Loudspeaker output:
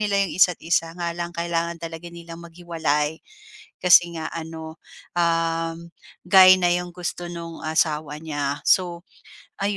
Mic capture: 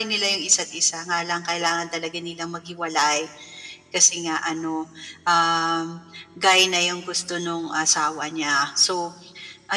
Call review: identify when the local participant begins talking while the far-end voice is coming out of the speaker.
none

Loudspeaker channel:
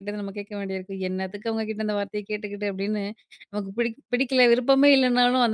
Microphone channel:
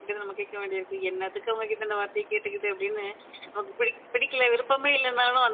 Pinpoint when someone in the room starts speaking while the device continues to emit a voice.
none

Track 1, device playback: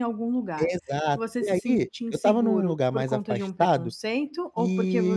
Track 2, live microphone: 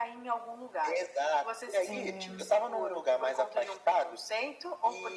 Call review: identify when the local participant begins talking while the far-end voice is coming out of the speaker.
2 s

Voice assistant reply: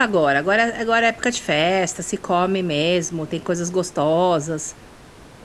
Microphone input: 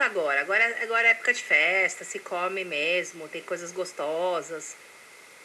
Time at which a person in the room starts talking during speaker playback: none

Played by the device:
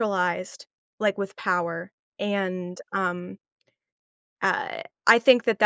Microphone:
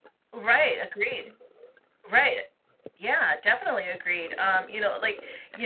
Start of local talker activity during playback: 0 s

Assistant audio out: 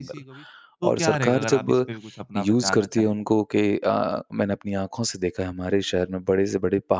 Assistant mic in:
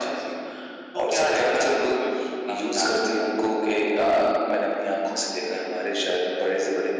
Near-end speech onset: none

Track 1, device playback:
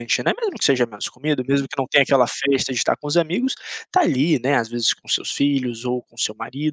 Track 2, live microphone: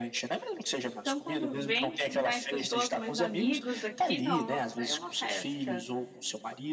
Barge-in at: 1 s

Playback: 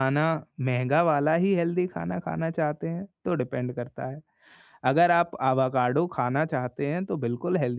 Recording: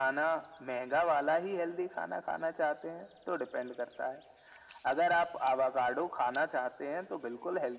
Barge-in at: none

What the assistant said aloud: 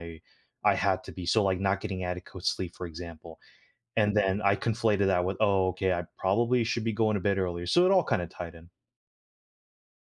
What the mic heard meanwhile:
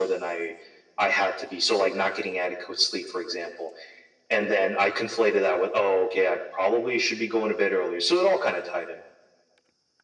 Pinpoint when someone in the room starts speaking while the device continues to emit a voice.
none

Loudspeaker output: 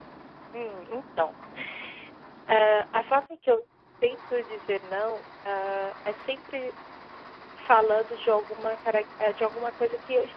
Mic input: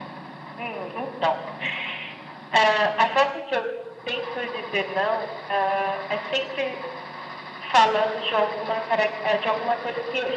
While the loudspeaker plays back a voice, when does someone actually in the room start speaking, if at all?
none

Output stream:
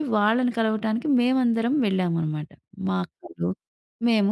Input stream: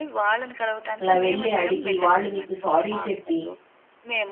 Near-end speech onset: 1 s

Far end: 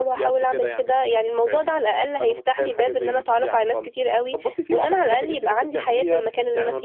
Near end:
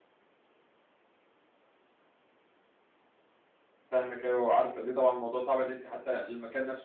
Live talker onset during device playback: 4 s

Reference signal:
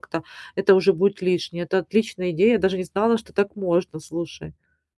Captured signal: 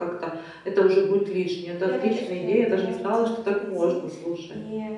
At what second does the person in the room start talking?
2 s

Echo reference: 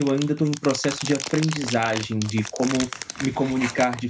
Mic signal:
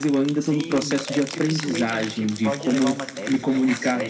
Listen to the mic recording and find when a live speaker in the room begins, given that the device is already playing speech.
0 s

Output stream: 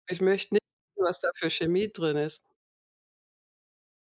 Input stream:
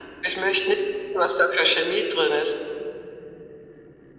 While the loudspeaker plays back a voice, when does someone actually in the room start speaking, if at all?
none

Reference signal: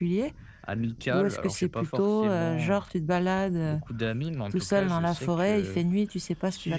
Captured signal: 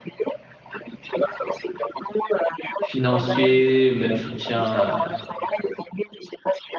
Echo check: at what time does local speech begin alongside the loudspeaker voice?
3 s

